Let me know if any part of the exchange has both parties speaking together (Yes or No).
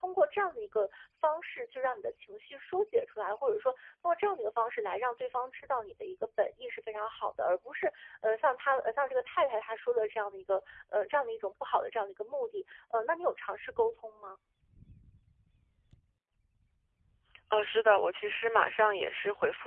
No